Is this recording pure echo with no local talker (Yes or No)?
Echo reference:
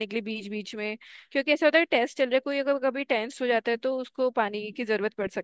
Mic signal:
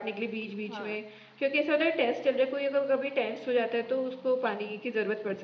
No